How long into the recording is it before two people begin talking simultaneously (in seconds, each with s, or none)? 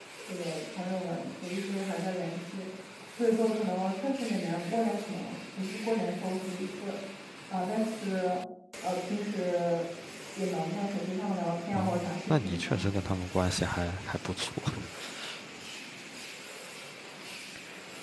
11.7 s